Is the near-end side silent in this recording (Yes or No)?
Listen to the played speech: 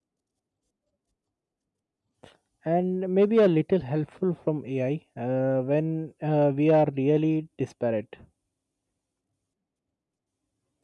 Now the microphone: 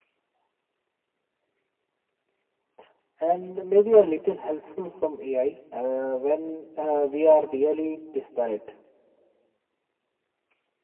Yes